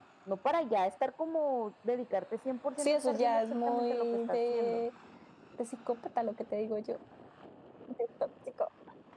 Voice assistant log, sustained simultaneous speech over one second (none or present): present